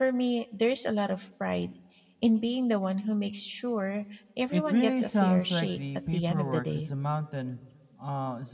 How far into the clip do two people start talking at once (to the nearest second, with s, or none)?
5 s